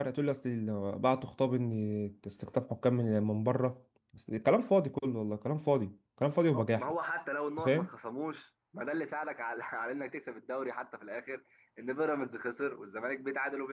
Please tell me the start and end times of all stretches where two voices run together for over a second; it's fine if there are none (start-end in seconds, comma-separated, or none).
none